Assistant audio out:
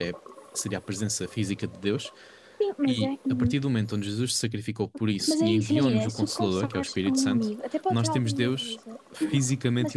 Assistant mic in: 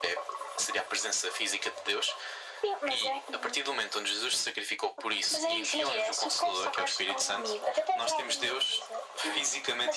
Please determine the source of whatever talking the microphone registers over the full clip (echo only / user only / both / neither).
echo only